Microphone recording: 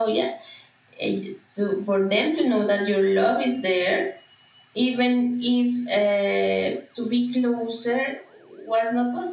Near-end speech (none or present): none